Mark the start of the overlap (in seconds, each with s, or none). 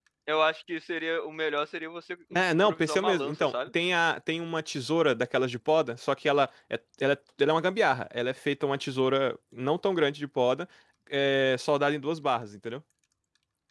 2.3 s